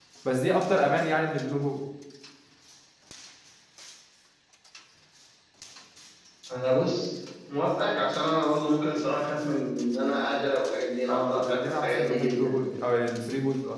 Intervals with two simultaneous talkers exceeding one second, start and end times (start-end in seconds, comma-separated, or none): 11.1-12.5